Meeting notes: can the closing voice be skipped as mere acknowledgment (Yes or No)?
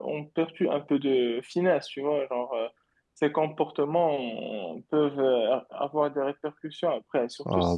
No